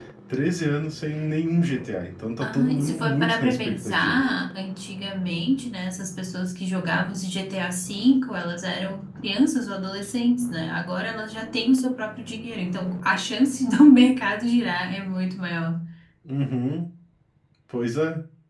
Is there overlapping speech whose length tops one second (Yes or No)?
Yes